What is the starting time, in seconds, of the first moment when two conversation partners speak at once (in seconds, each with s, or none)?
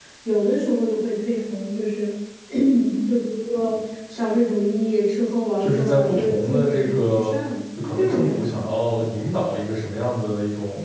5.6 s